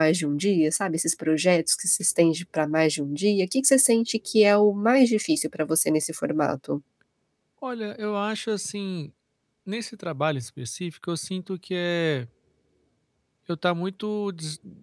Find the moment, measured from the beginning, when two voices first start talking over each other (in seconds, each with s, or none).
none